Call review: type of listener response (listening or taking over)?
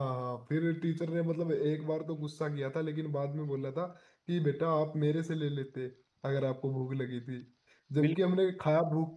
listening